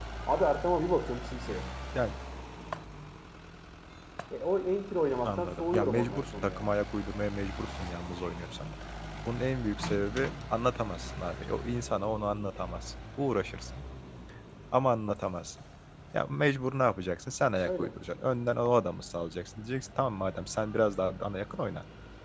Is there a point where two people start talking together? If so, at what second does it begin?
5 s

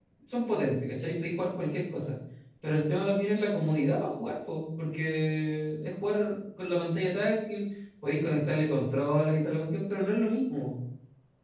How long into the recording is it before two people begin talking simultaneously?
none

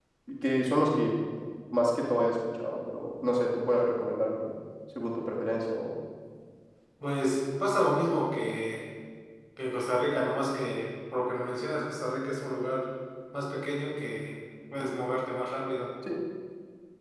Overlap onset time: none

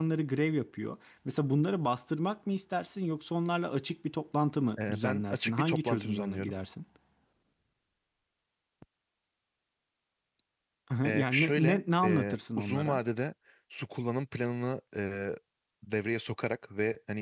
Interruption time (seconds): 5 s

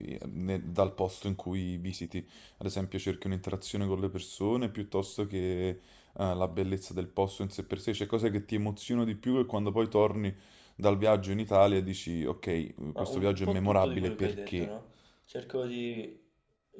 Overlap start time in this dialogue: 13 s

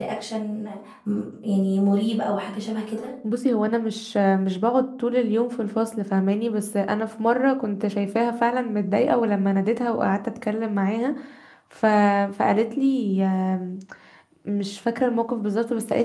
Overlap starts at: none

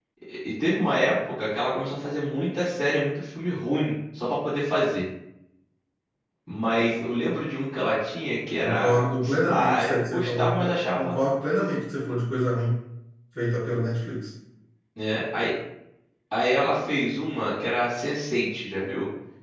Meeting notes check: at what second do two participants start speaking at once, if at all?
9 s

